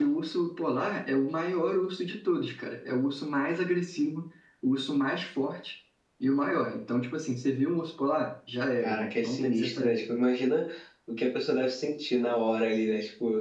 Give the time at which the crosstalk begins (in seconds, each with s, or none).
8.8 s